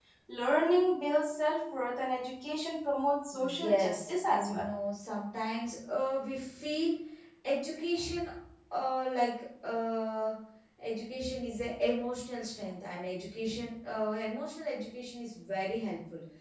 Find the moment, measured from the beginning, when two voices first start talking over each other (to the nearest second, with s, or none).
3 s